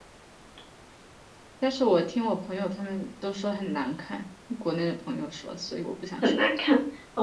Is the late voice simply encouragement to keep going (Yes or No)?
No